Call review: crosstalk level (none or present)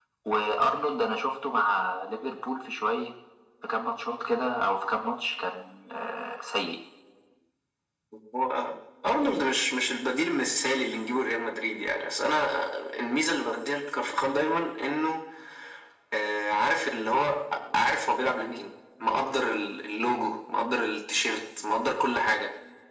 none